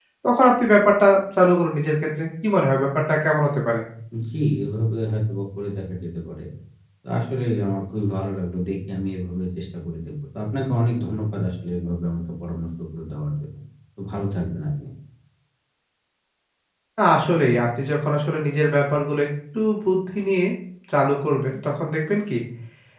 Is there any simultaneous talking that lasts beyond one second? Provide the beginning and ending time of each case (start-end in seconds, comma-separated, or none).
none